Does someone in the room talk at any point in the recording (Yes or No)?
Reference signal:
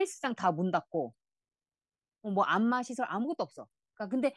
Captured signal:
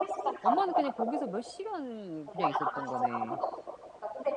Yes